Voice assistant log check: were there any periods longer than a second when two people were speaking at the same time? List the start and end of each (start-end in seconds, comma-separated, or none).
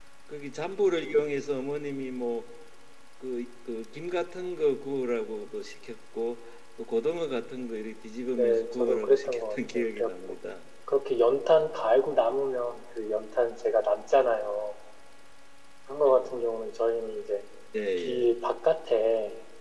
8.3-10.1